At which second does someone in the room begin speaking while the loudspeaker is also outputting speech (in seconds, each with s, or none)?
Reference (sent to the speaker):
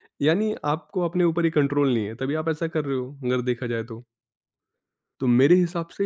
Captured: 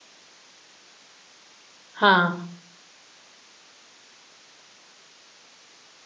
2.0 s